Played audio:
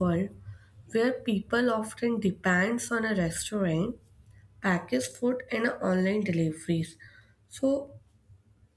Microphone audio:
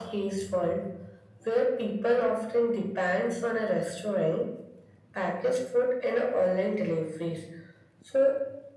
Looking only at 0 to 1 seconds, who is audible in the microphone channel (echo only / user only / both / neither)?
echo only